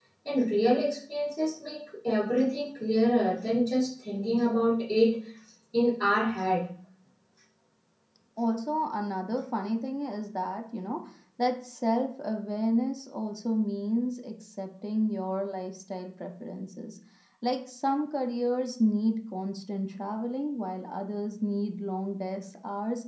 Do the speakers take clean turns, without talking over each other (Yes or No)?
Yes